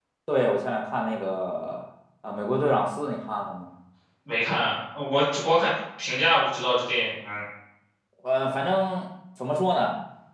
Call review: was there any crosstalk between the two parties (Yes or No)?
No